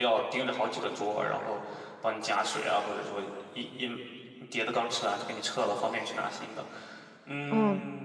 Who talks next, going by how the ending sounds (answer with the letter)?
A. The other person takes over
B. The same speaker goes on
A